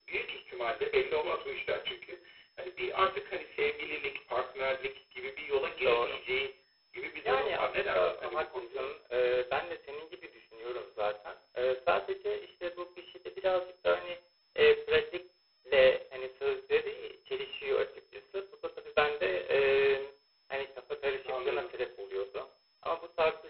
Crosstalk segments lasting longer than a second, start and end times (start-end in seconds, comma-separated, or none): 7.2-8.9